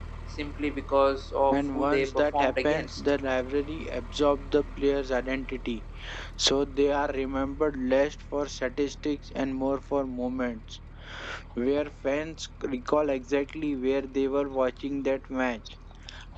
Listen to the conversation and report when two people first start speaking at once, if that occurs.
1.5 s

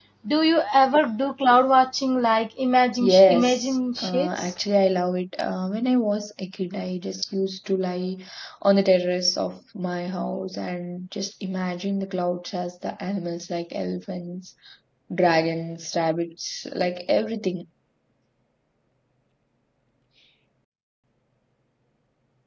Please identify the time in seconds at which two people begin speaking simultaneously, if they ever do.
3.0 s

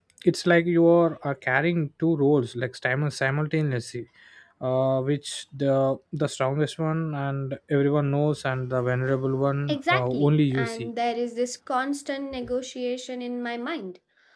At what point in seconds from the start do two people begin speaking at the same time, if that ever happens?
9.7 s

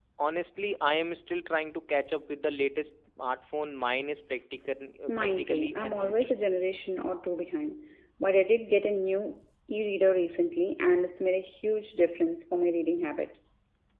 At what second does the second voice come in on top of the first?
5.1 s

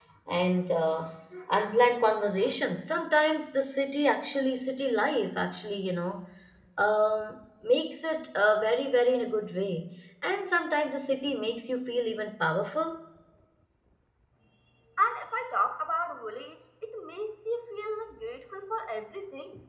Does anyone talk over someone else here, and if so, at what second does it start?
none

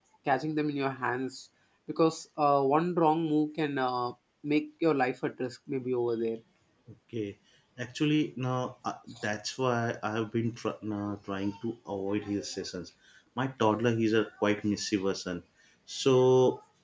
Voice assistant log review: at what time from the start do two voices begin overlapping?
none

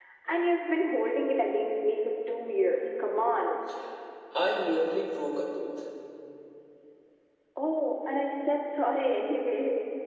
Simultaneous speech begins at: none

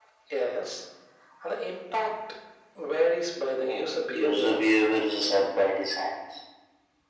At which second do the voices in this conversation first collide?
3.6 s

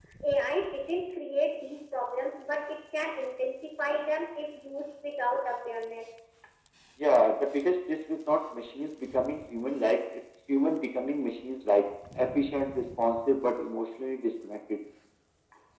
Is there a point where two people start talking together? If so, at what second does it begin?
none

